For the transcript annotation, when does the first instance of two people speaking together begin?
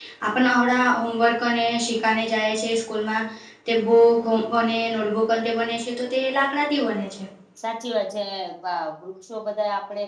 none

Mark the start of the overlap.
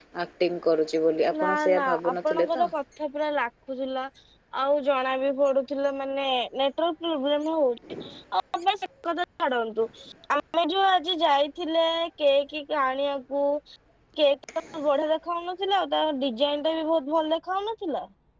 1.4 s

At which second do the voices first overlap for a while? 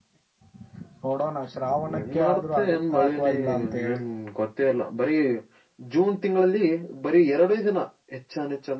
1.8 s

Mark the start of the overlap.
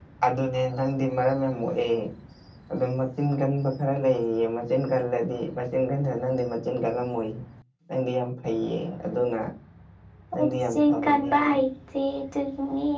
10.4 s

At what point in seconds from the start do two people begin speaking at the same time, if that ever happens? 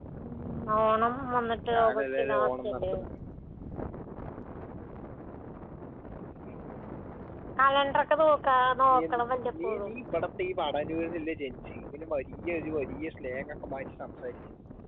1.7 s

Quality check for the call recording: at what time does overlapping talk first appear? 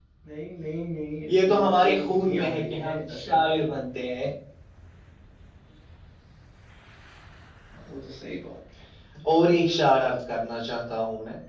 1.3 s

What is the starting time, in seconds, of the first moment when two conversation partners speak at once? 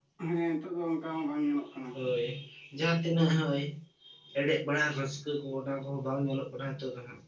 none

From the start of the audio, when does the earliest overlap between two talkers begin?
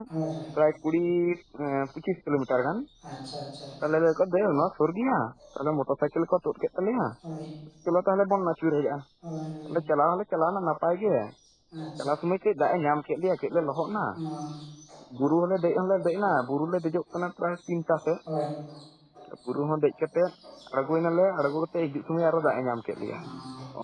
none

